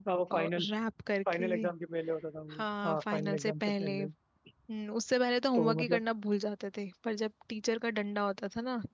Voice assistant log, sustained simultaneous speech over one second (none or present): present